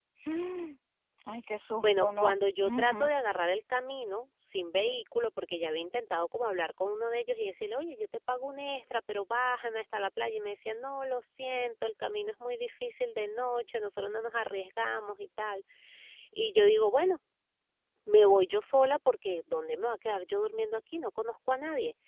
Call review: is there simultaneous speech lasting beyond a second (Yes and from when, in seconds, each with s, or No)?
Yes, from 1.8 s